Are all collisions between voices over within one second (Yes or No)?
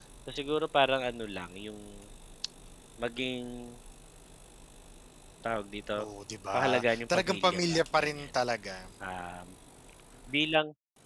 No